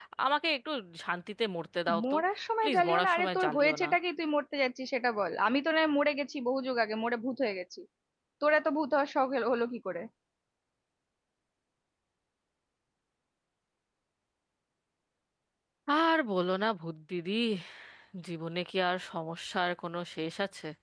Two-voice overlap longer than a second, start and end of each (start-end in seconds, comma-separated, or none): 2.6-3.9